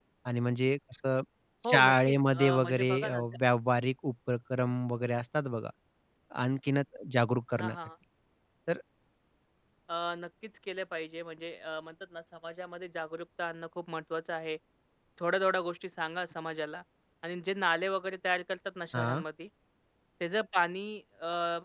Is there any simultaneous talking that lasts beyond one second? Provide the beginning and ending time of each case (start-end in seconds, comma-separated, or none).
1.7-3.2